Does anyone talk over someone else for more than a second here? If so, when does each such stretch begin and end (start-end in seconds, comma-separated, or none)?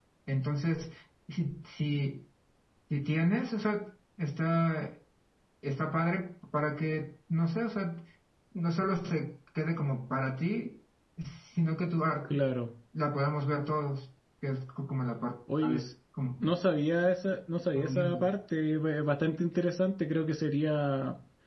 none